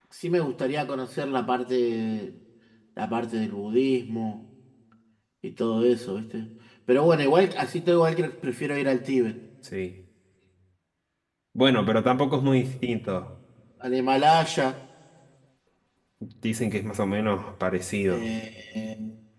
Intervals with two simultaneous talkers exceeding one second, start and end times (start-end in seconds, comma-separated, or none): none